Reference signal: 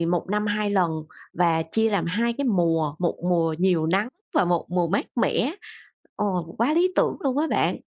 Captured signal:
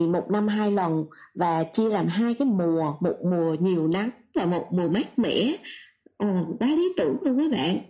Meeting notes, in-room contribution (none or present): none